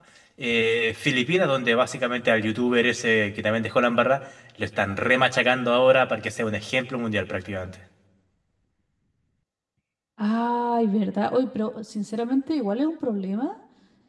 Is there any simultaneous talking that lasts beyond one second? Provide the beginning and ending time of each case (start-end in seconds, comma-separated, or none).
none